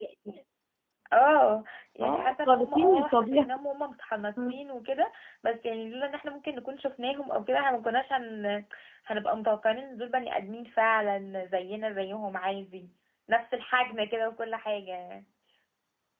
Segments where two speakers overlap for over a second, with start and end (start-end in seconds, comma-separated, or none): 2.0-3.5